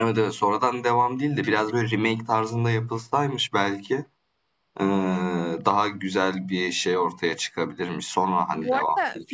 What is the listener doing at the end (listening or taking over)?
taking over